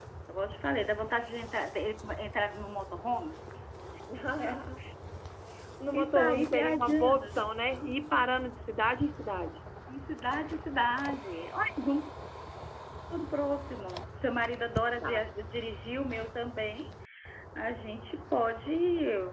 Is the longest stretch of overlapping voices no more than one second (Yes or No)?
No